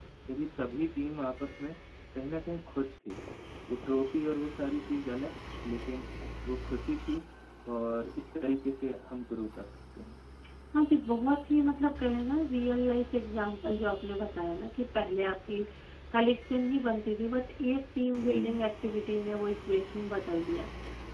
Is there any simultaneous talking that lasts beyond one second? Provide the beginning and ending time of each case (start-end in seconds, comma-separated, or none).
none